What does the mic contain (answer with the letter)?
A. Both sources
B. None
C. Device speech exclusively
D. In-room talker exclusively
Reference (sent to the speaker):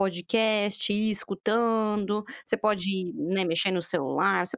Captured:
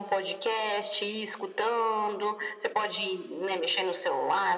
C